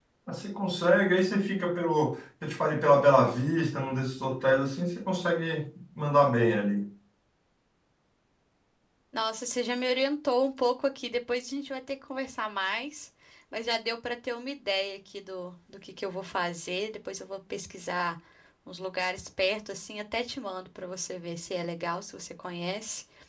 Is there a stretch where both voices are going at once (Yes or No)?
No